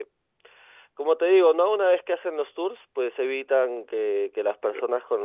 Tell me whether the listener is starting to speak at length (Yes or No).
No